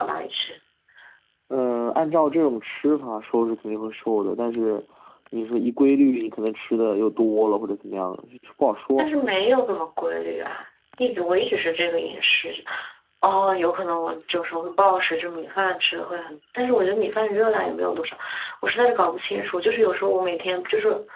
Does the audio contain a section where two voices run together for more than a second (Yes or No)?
No